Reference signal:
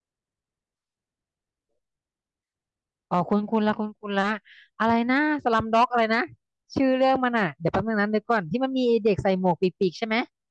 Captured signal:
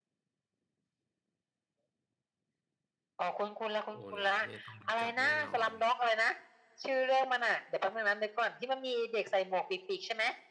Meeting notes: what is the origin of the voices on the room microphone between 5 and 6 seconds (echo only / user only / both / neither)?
both